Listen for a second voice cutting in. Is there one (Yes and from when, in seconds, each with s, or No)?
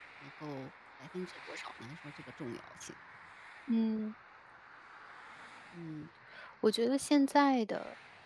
No